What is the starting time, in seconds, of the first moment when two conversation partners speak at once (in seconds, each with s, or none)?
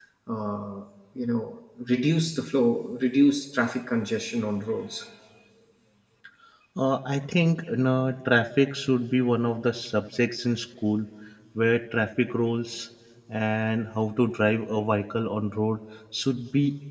none